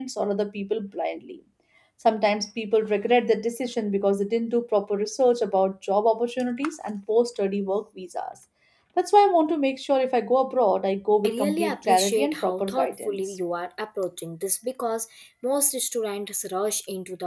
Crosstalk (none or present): present